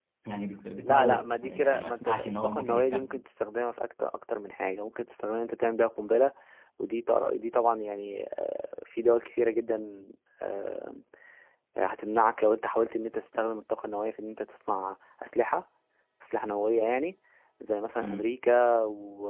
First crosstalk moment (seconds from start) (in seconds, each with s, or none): 0.8 s